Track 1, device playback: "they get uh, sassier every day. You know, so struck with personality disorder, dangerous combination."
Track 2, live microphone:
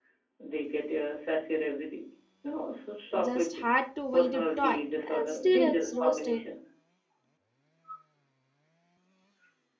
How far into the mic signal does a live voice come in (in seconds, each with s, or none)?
3.2 s